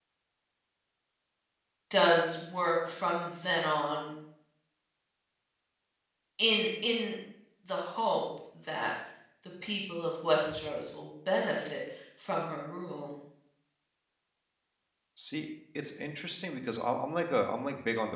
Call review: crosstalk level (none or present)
none